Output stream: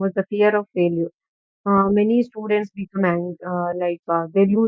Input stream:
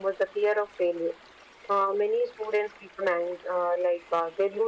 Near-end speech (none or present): none